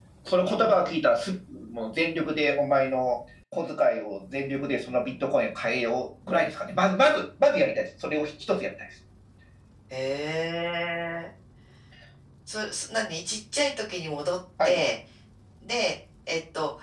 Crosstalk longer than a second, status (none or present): none